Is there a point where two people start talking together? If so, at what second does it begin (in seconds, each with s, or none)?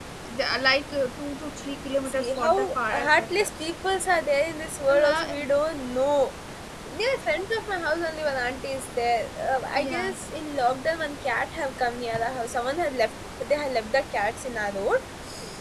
2.1 s